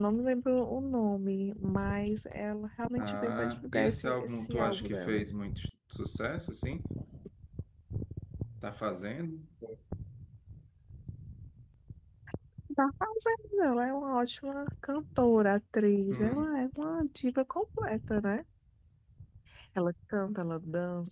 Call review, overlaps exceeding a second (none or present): present